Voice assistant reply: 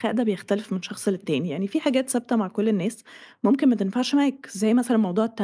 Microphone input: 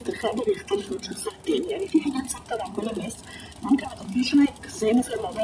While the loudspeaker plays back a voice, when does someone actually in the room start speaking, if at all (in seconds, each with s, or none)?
none